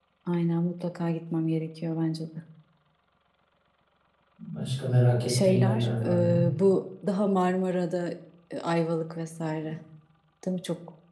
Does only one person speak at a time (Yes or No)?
No